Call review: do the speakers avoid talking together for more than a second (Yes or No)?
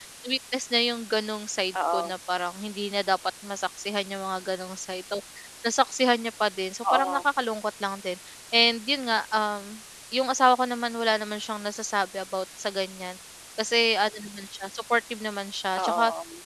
Yes